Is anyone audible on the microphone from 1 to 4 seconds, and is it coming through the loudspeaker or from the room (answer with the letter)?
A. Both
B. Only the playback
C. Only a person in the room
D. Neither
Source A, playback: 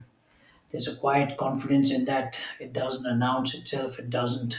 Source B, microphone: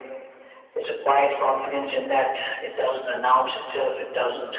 B